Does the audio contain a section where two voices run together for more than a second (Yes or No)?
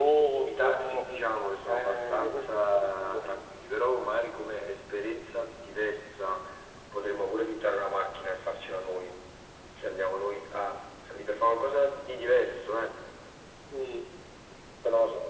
Yes